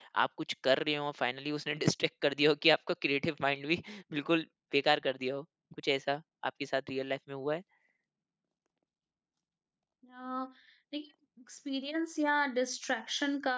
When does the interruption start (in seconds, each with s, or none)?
none